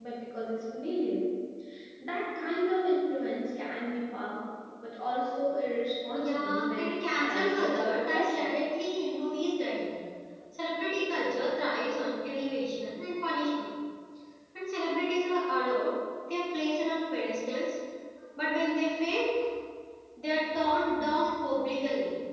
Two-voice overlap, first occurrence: 6.1 s

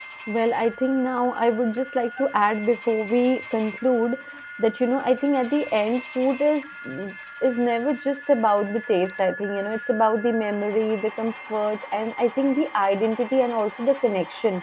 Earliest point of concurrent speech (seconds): none

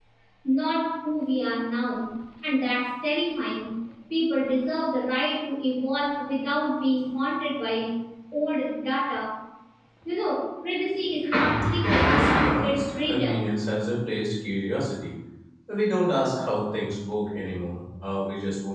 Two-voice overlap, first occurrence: 11.8 s

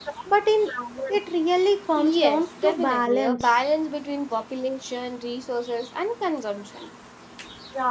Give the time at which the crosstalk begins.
2.0 s

